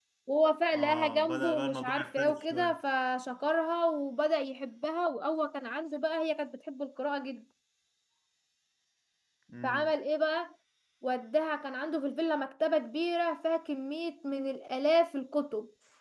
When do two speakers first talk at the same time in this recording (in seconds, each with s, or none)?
0.7 s